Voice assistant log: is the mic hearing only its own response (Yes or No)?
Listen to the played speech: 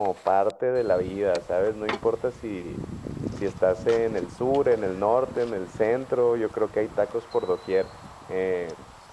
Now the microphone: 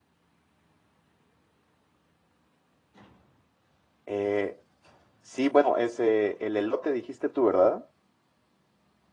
No